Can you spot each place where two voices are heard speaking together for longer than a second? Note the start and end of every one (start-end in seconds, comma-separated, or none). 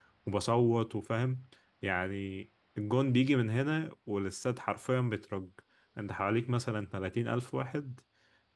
none